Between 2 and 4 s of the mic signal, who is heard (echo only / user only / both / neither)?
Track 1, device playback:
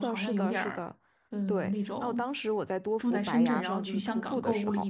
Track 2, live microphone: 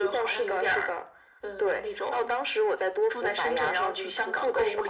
echo only